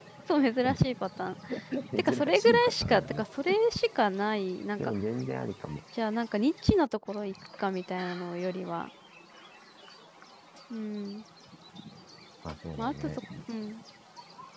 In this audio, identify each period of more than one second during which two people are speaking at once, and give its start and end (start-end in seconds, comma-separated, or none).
2.0-3.2